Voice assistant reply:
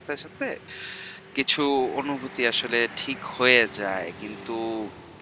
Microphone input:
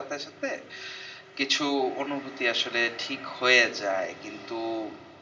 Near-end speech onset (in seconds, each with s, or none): none